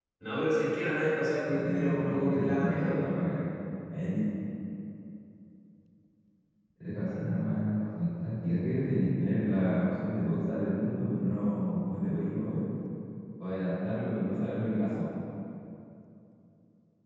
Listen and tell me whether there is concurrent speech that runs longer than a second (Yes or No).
Yes